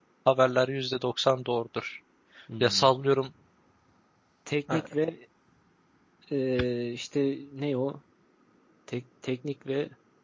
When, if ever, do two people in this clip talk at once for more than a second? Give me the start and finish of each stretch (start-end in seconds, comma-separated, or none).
none